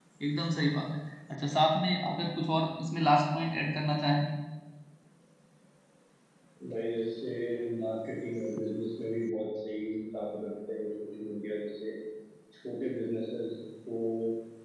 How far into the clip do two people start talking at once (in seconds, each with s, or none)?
none